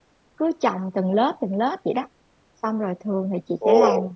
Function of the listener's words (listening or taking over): listening